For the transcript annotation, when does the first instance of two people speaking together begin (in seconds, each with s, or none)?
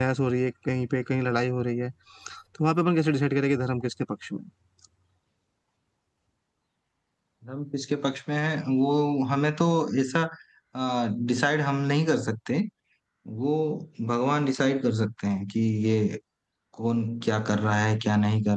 none